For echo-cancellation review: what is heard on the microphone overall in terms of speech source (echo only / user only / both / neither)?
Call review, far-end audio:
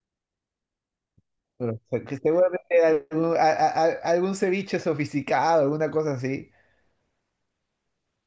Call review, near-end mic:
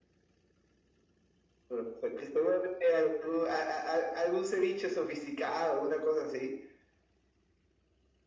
echo only